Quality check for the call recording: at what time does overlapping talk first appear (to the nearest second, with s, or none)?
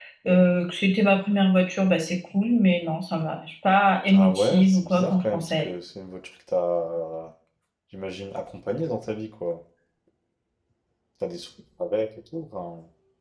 4 s